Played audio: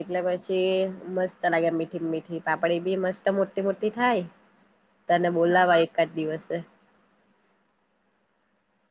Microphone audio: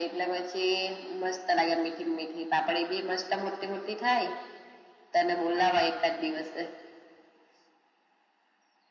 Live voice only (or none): none